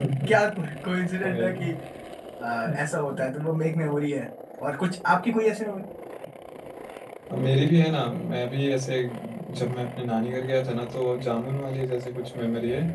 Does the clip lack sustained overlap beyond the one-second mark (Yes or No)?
Yes